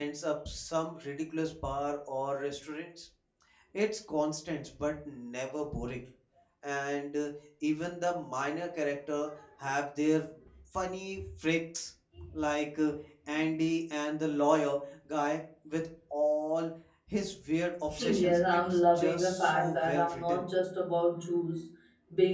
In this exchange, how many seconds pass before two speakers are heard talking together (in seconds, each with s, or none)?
17.9 s